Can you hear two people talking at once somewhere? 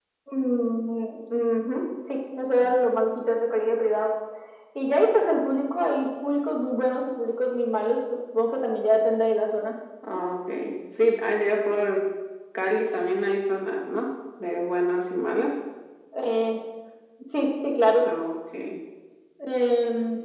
No

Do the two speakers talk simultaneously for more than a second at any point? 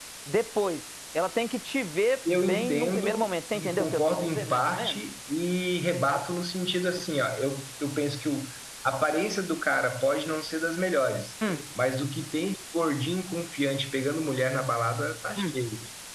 Yes, from 2.3 s

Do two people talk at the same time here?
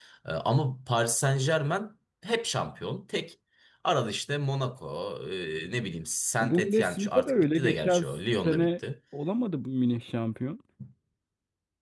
Yes, from 6.4 s

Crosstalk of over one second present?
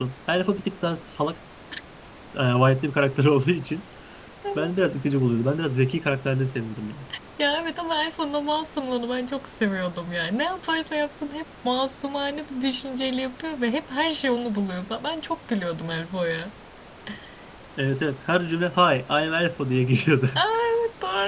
No

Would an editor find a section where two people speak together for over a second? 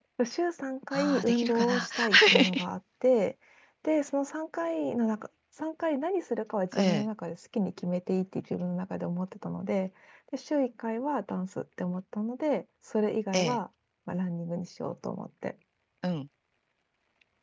Yes, from 0.9 s

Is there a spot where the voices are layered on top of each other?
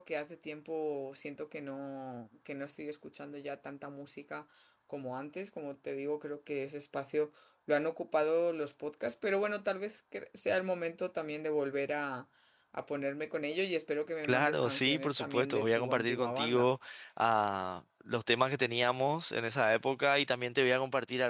Yes, from 14.2 s

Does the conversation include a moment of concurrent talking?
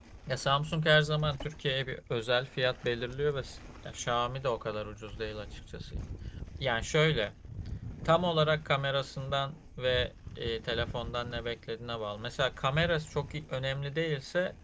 No

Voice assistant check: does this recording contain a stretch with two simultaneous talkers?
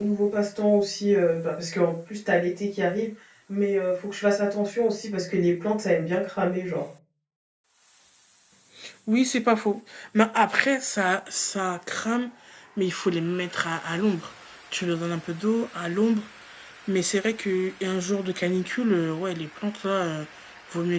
No

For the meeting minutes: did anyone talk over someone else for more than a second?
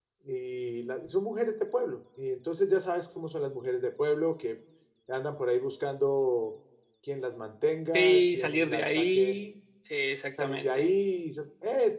Yes, from 7.9 s

